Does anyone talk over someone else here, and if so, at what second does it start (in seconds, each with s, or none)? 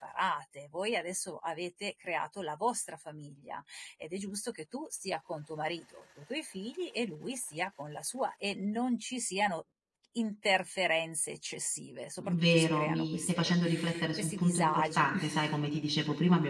12.2 s